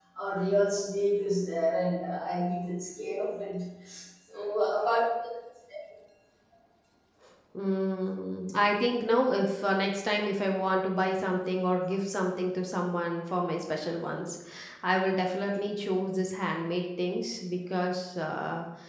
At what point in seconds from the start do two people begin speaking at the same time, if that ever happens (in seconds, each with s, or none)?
none